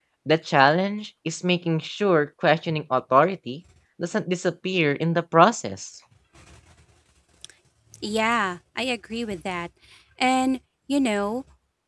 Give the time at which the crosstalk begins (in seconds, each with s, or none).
none